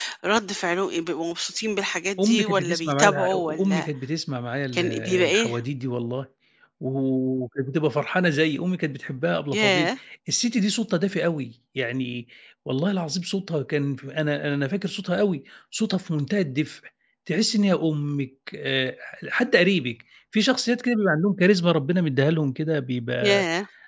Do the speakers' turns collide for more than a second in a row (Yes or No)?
Yes